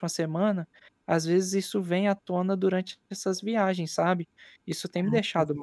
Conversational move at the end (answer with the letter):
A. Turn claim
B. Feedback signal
A